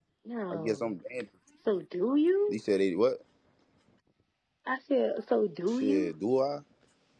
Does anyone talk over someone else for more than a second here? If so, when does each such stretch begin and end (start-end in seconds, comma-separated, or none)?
none